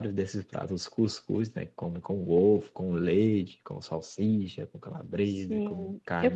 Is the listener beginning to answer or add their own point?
Yes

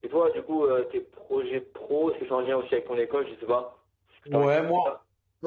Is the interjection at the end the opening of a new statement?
Yes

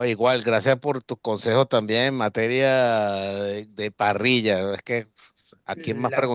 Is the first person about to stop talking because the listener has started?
No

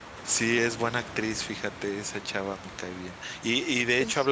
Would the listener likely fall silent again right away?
Yes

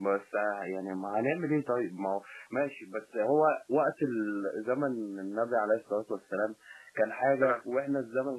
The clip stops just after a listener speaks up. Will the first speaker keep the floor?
Yes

